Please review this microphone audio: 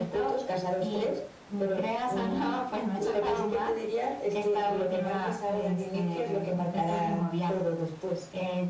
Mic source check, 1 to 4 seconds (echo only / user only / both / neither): echo only